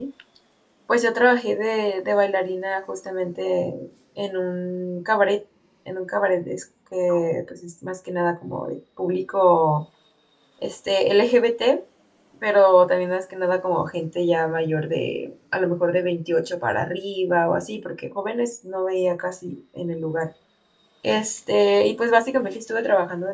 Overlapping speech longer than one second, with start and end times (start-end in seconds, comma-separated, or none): none